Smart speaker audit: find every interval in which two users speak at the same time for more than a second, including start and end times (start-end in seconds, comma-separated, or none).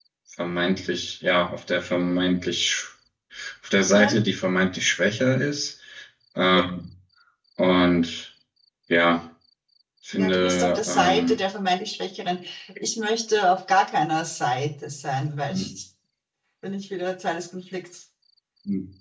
10.1-11.4